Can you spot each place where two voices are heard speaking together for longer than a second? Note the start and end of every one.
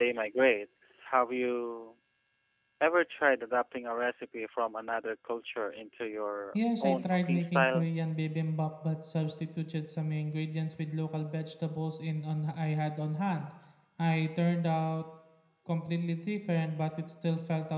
6.6-7.9

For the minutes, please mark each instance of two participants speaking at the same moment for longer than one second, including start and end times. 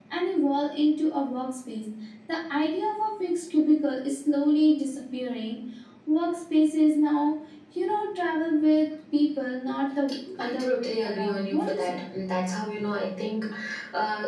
10.4-12.0

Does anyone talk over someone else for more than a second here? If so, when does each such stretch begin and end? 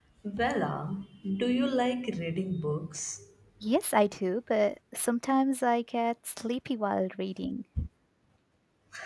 none

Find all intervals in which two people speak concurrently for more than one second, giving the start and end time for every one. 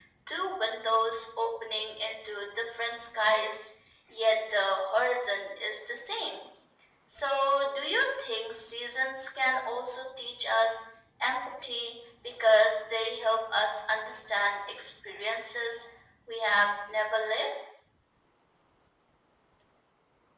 none

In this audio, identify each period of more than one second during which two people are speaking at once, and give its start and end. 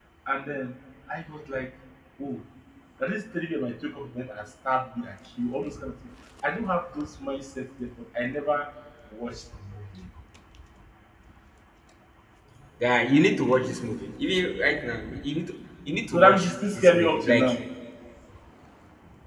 16.1-17.6

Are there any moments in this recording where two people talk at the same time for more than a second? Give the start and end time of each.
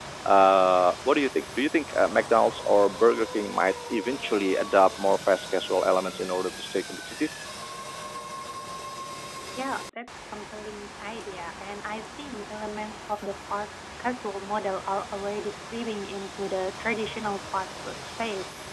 none

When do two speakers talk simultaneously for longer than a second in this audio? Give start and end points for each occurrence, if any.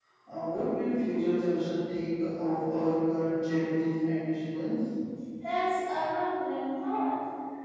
none

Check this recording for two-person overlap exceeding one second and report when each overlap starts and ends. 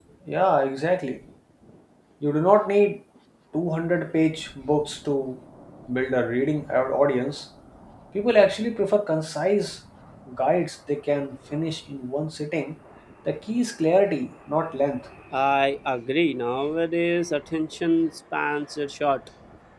none

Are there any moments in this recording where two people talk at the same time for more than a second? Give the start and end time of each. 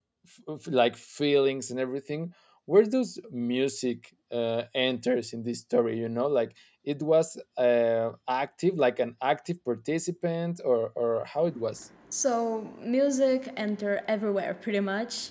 none

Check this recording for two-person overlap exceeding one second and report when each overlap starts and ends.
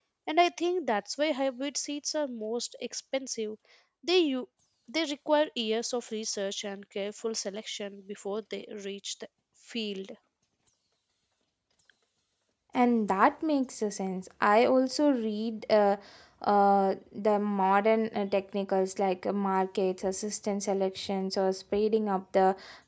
none

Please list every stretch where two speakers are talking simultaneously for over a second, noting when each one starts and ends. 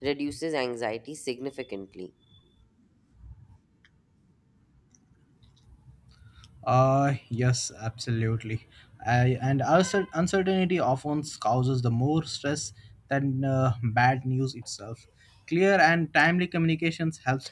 none

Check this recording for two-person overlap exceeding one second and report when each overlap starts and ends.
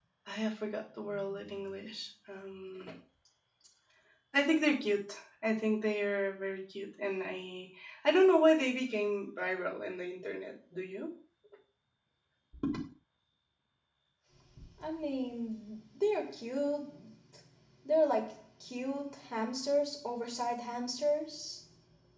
none

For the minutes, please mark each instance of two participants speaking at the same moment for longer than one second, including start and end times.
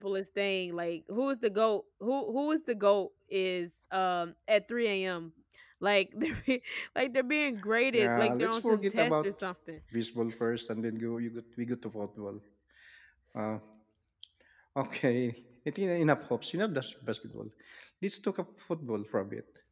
7.9-9.3

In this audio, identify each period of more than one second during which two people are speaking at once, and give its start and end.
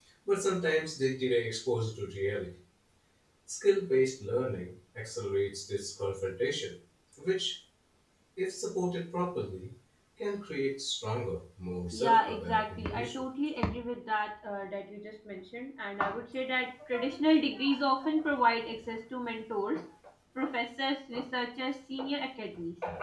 11.9-13.2

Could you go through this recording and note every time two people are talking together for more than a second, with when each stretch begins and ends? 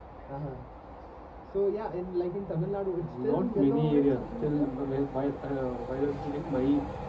3.0-4.7

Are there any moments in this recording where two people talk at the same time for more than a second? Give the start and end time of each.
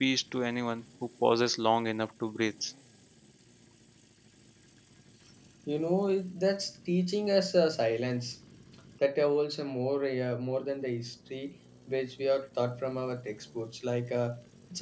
none

